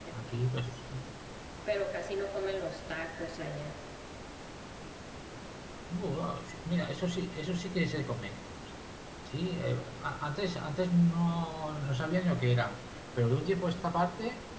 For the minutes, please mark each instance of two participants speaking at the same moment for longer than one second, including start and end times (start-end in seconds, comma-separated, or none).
none